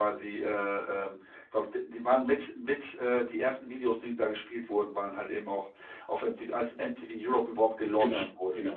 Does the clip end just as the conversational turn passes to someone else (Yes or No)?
Yes